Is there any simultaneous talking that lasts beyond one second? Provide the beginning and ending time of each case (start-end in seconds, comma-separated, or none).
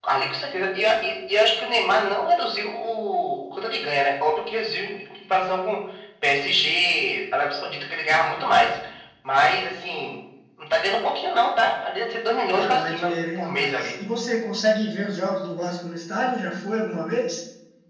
12.5-13.8